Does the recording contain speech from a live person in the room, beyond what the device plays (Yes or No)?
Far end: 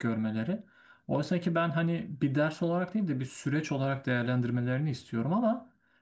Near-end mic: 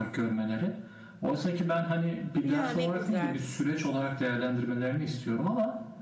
Yes